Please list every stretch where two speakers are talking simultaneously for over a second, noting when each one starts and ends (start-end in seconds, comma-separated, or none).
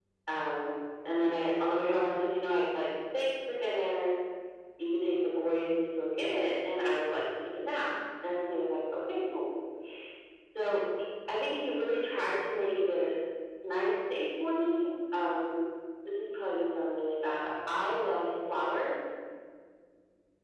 none